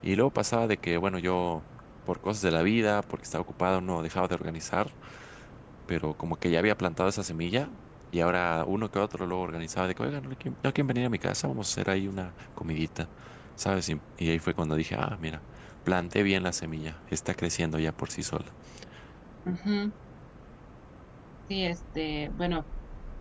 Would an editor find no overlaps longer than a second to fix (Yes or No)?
Yes